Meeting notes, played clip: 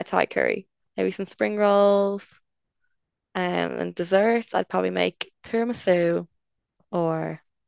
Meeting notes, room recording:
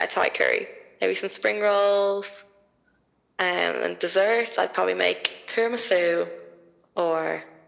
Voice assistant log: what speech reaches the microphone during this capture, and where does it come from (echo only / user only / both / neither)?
echo only